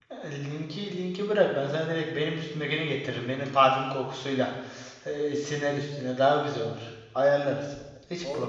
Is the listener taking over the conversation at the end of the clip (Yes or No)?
Yes